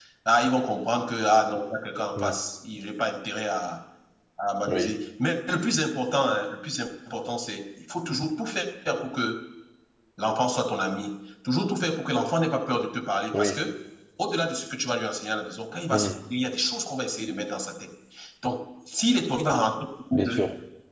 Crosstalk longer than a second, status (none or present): none